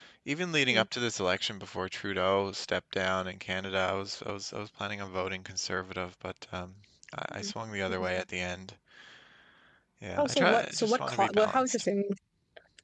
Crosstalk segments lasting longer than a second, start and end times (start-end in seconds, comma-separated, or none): 10.2-11.8